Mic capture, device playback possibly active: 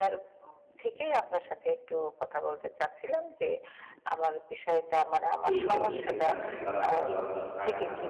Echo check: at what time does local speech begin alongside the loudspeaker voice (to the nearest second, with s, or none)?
5 s